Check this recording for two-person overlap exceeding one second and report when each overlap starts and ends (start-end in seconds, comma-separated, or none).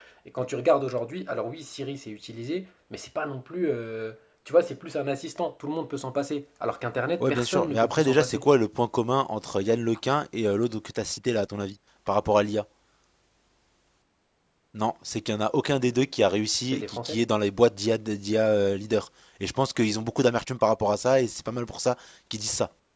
7.2-8.4